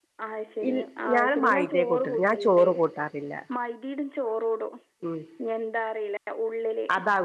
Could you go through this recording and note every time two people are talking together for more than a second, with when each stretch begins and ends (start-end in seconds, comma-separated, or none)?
1.1-2.6